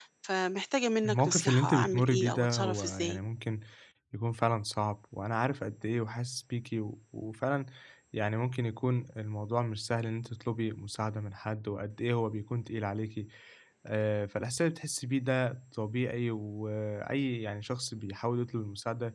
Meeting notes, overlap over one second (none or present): present